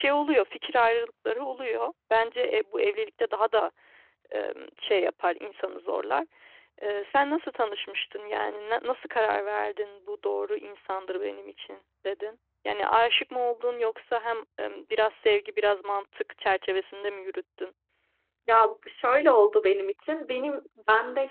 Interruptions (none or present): none